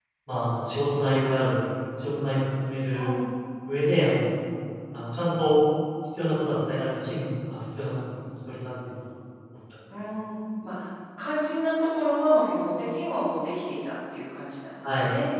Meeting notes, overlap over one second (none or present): none